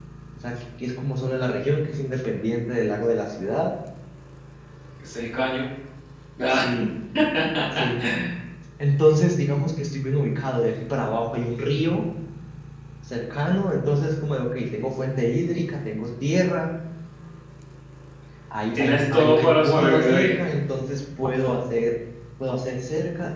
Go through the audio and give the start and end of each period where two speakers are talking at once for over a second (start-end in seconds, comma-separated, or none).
18.7-20.3